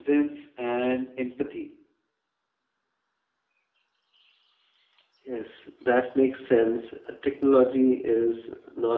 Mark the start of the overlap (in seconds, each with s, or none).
none